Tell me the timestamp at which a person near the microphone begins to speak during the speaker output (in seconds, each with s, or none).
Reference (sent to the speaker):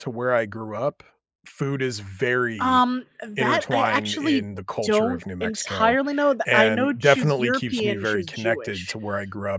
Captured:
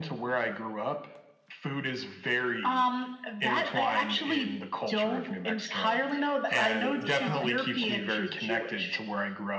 6.4 s